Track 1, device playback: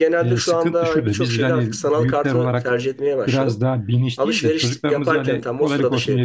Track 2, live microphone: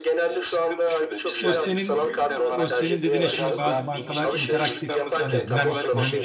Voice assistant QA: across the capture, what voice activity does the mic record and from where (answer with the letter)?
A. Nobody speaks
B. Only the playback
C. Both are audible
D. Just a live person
C